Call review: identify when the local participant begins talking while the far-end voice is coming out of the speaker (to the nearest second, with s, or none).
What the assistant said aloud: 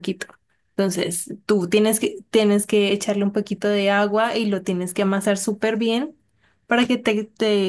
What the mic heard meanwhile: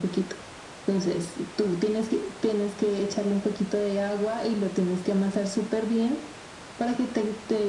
none